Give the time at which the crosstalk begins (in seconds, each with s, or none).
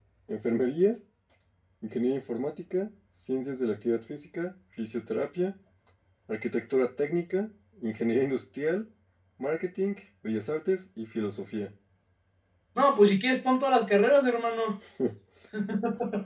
none